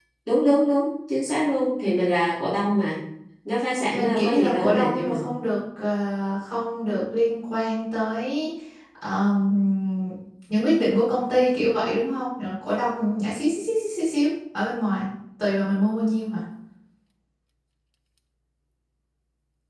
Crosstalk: present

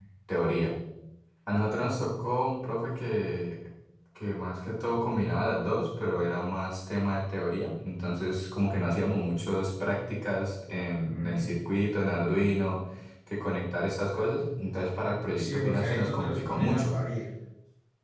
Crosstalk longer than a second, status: present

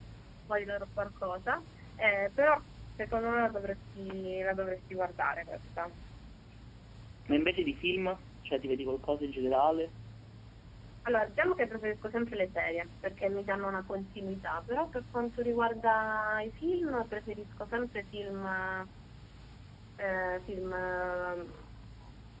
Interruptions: none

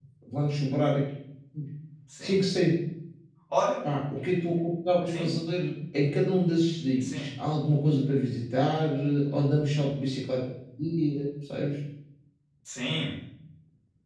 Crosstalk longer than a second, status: none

